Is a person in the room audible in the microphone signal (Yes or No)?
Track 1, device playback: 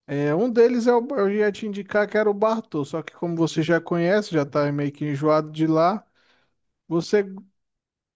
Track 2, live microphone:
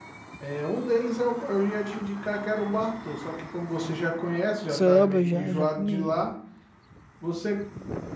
Yes